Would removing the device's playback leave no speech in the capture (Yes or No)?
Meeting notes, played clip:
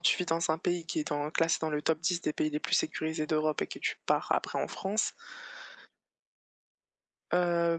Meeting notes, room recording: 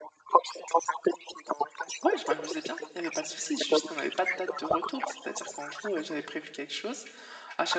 No